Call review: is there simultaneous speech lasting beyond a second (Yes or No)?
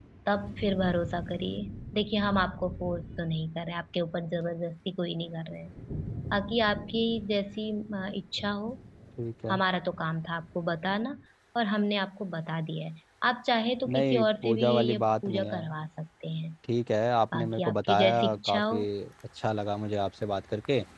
Yes